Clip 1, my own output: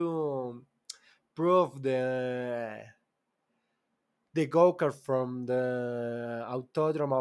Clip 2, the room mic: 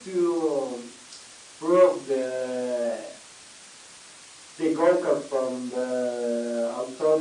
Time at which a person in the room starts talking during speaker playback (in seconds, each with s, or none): none